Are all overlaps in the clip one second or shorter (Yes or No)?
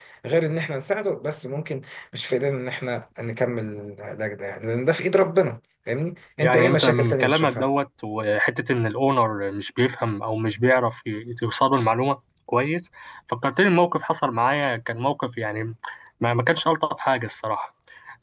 No